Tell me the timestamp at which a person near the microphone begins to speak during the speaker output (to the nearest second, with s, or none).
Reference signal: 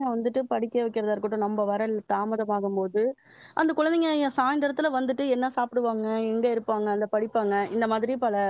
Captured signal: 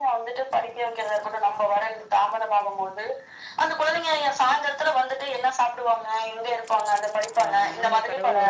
7 s